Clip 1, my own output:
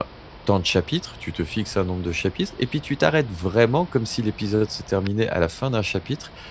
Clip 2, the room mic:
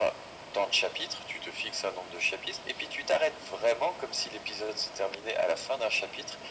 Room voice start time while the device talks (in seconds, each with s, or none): none